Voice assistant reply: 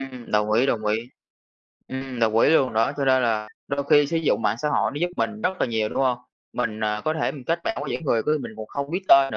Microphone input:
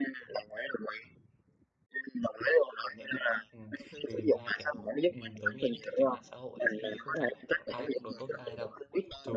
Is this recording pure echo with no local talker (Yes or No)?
No